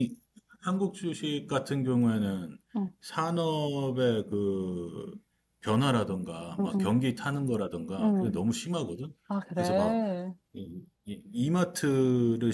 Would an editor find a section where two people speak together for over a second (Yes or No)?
No